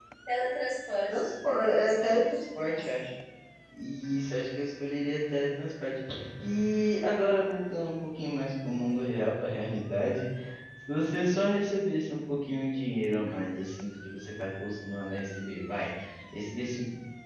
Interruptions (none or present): present